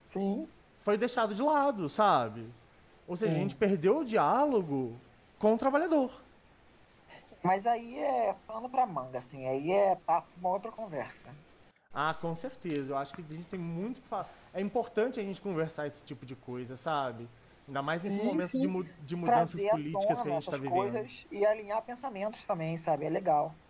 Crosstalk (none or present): present